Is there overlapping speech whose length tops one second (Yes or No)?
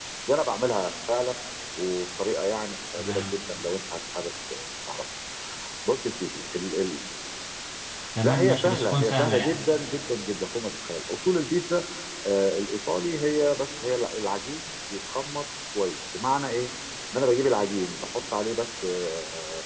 Yes